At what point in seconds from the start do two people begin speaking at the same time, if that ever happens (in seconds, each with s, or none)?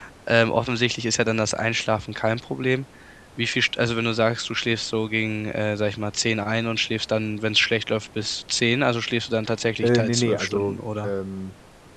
9.8 s